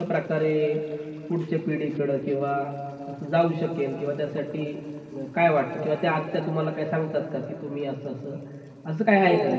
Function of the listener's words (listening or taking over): taking over